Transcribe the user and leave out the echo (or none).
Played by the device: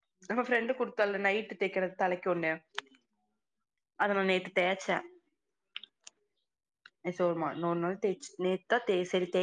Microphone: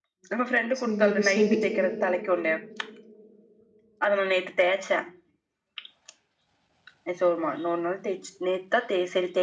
சேரி சேரி